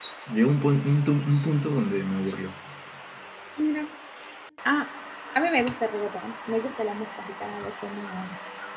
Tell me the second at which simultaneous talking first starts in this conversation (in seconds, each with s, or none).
none